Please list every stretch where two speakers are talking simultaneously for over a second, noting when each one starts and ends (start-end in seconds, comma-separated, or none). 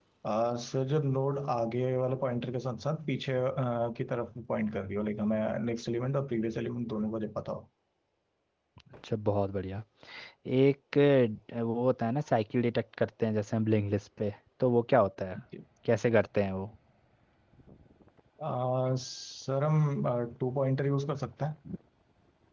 none